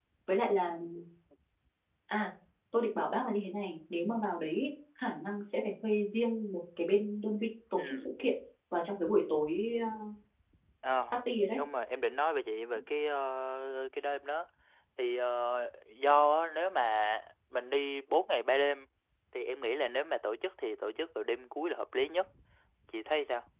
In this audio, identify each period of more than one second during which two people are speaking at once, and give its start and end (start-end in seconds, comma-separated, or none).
none